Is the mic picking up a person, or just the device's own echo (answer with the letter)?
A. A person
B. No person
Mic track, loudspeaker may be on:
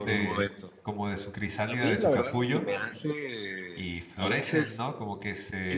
A